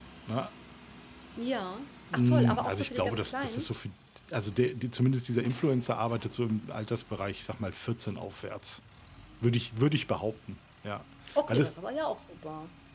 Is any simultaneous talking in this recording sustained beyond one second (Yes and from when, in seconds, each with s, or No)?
Yes, from 2.1 s